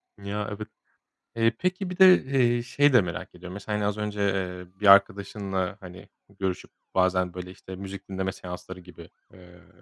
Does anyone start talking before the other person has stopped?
No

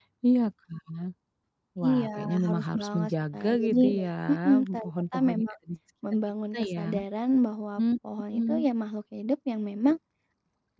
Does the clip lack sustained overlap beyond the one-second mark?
No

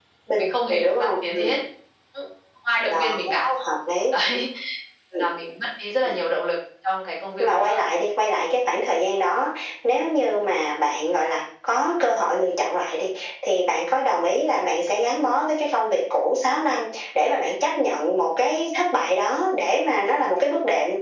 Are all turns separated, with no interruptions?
No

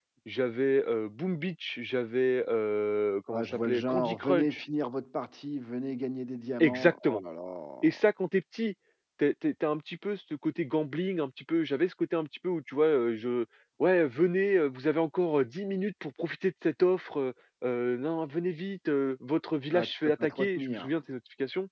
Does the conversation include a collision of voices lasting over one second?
Yes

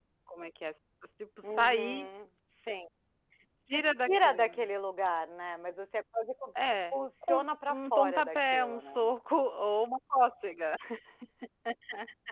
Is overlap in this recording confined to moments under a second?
No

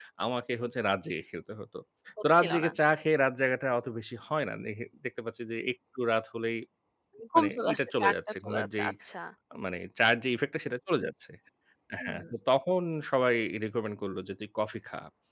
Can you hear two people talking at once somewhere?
Yes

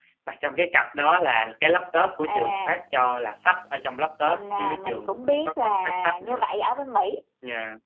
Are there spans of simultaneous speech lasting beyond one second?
Yes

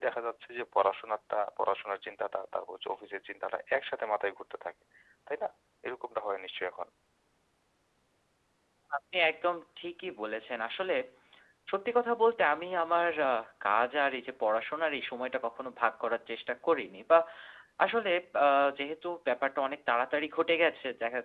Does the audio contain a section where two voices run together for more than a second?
No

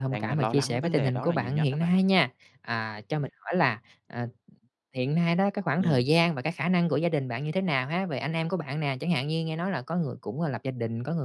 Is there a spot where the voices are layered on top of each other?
Yes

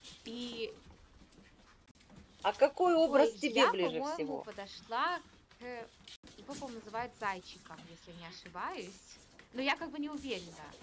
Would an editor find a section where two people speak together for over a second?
Yes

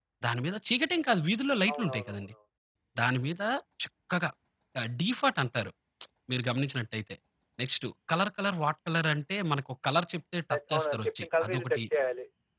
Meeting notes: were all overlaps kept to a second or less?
No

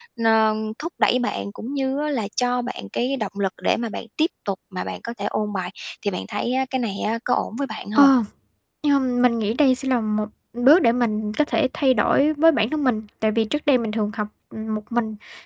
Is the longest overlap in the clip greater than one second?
No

